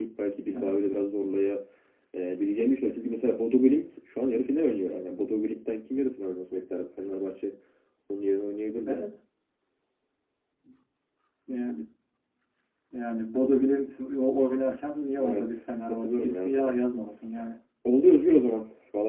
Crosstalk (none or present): present